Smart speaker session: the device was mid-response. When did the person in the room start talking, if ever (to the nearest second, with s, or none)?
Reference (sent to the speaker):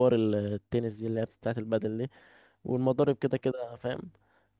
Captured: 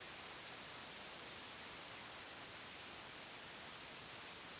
none